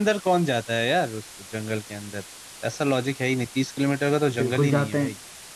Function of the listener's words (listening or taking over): taking over